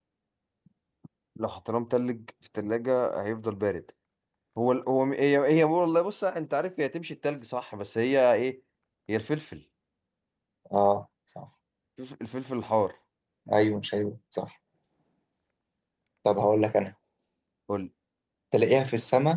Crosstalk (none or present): none